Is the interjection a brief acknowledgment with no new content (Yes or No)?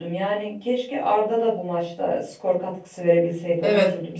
No